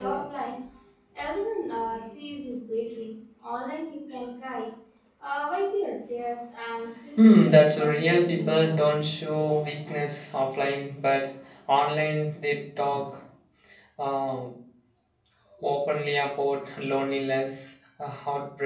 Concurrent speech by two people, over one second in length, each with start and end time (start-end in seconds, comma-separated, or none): 7.2-8.8